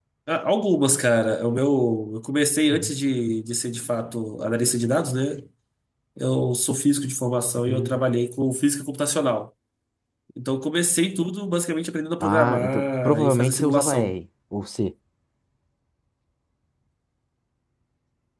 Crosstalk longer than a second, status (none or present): present